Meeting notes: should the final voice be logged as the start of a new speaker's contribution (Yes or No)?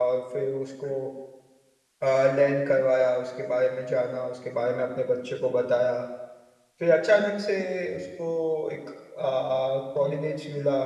No